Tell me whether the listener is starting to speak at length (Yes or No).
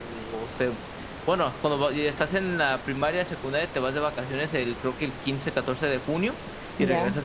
No